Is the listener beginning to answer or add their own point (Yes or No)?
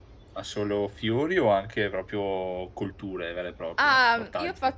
Yes